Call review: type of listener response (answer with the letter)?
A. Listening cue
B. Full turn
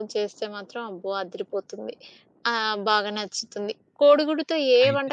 A